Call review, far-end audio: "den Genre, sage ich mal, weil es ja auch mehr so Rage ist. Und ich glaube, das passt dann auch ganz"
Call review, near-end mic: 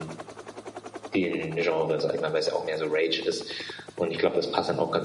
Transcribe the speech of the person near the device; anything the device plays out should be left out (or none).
none